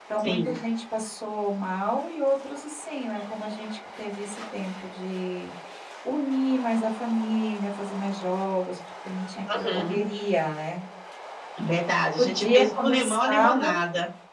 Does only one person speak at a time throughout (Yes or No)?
No